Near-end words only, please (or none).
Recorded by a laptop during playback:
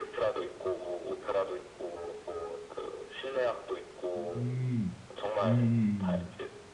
음, 음, 음,